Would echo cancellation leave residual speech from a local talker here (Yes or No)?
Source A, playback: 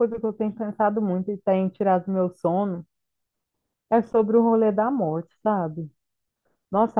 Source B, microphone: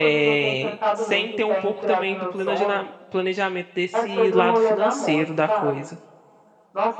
Yes